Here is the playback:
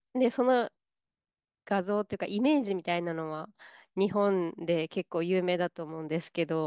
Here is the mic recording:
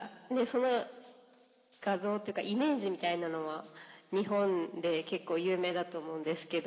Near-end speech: none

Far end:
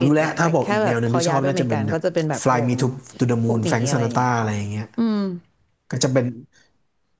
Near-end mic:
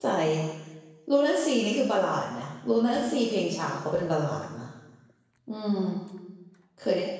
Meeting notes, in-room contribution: present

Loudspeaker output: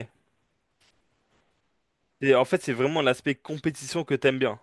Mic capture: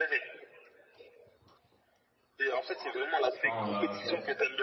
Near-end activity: present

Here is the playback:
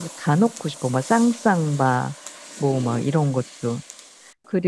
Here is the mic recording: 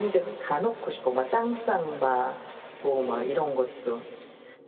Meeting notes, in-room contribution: none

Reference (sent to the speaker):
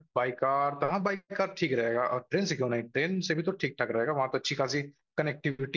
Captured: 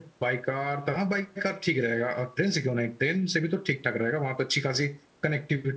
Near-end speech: none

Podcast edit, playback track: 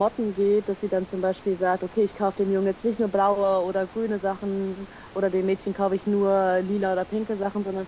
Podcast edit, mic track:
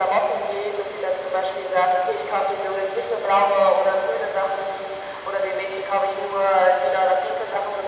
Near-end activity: none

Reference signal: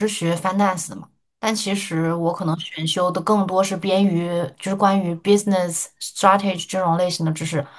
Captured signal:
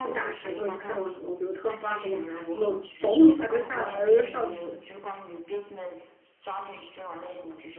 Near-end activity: present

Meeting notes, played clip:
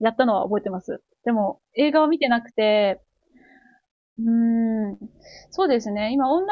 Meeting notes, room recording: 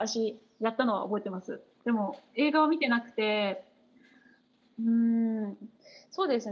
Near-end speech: none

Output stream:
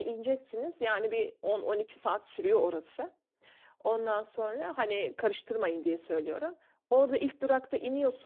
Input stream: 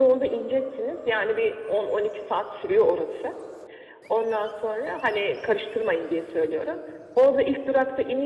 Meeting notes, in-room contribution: none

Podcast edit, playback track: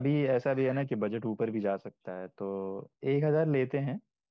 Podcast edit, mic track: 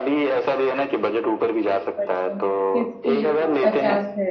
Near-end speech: present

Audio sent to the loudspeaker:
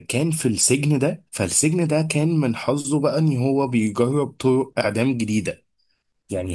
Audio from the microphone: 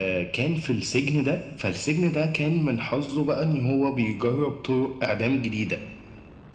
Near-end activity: none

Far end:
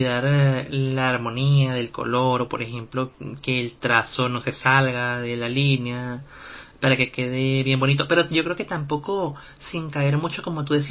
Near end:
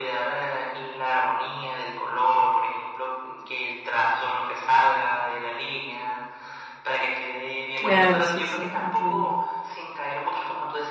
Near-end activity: present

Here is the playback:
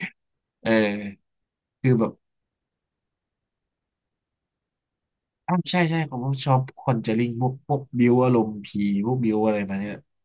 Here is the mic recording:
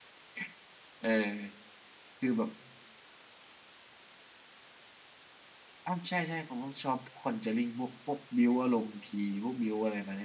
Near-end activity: none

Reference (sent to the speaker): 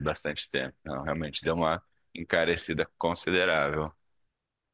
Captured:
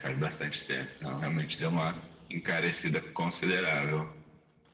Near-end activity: none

